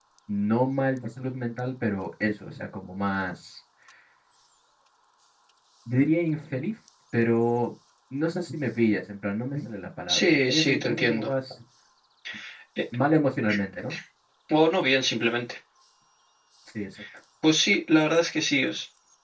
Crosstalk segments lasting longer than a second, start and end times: 10.1-11.3

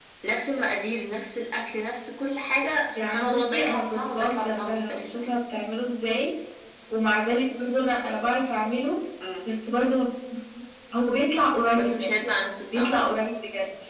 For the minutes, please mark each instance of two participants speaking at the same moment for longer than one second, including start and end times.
3.0-5.4

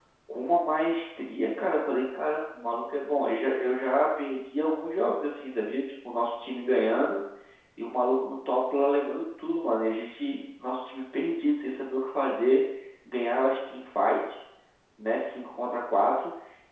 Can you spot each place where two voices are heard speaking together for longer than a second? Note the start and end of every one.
none

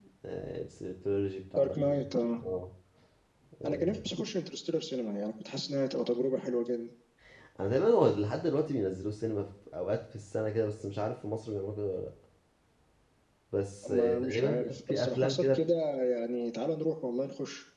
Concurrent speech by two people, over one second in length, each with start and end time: 13.9-15.6

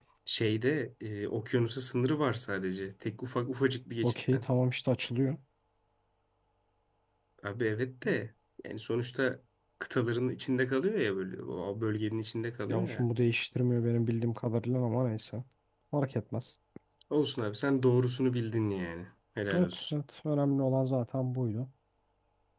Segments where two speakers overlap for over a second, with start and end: none

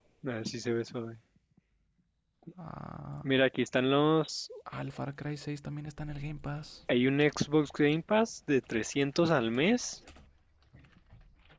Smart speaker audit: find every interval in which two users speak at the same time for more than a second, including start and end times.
none

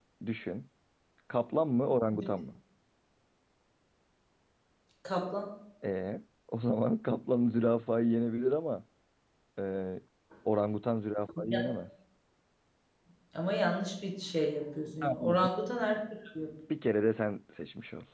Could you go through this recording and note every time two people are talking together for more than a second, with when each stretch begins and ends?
none

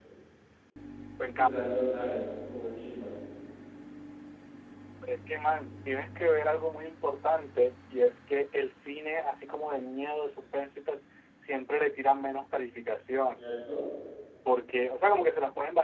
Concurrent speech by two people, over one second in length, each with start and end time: none

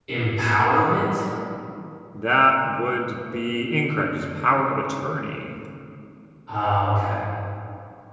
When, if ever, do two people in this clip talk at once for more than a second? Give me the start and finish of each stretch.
none

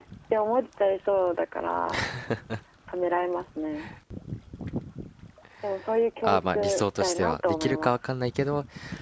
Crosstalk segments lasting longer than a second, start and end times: 6.2-7.9

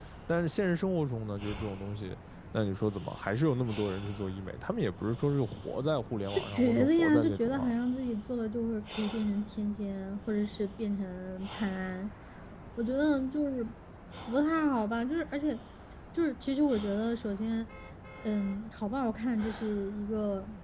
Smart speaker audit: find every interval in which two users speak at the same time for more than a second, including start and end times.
6.4-7.7

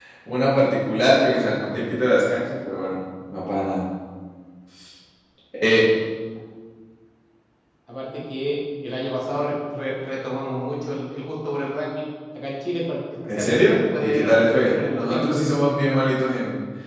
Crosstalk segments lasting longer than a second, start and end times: 13.3-15.3

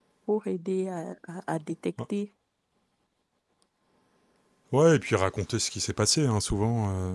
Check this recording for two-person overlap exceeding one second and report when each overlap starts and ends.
none

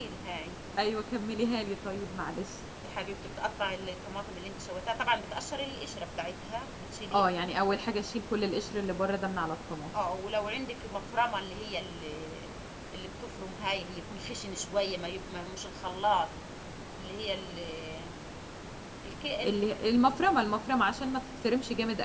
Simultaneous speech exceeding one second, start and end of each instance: none

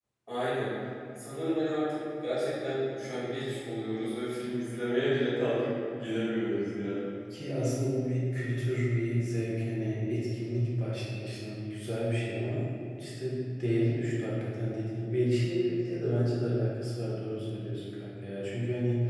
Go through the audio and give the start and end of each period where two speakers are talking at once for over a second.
none

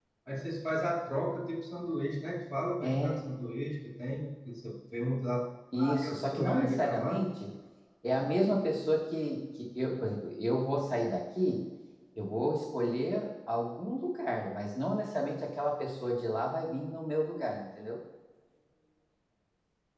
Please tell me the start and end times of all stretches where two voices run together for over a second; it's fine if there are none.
6.0-7.2

